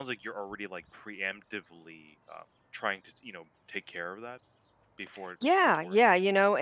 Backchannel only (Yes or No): No